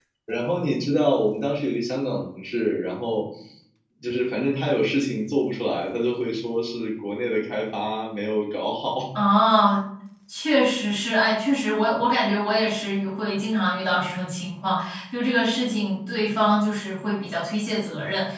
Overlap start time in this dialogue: none

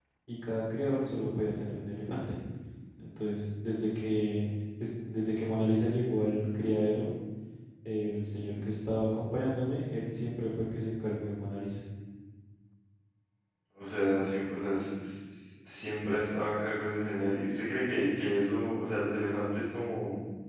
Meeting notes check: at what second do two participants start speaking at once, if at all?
none

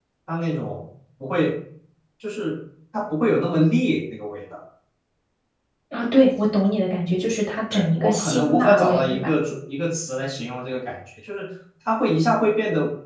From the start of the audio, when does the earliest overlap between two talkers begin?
8 s

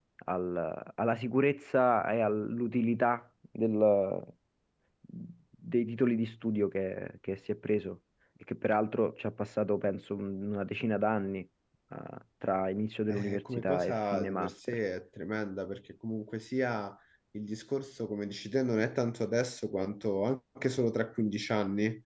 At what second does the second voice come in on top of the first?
13 s

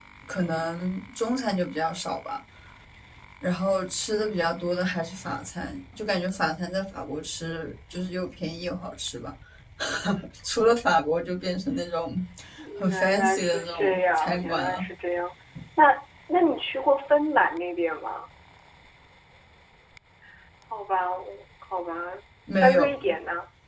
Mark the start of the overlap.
13 s

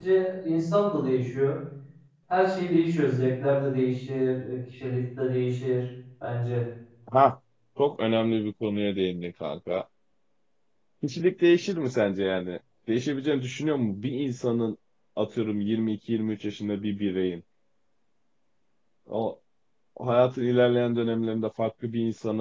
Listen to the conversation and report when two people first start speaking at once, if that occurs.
none

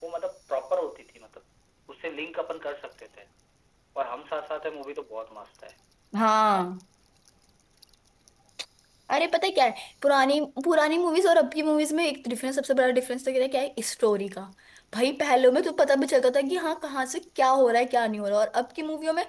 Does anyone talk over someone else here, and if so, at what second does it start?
none

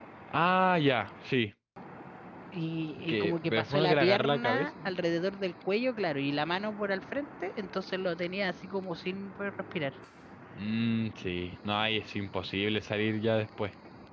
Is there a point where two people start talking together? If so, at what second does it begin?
3 s

